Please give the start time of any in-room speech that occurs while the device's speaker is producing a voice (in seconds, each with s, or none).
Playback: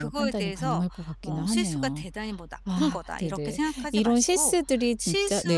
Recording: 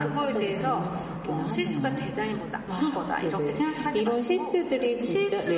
none